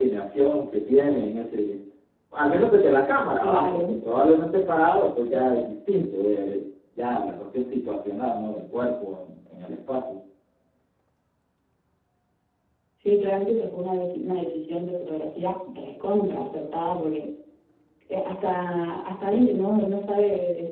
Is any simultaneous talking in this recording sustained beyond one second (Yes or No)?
No